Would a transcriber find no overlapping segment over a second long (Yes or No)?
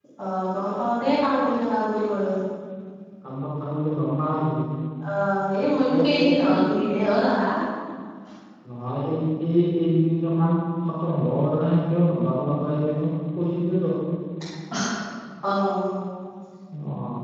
Yes